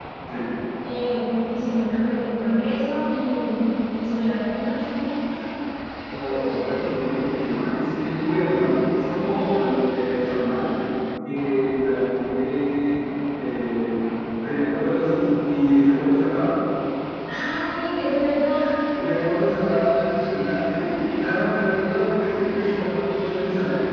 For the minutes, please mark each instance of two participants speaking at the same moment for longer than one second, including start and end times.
none

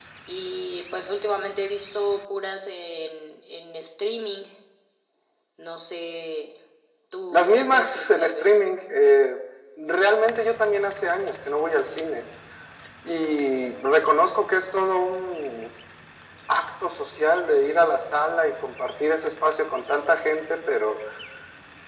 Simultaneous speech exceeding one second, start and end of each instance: 7.3-8.6

